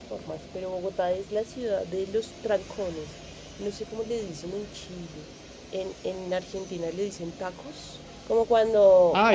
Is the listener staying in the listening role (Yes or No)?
Yes